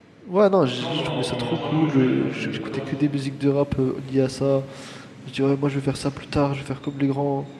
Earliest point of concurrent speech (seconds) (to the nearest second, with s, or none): 1 s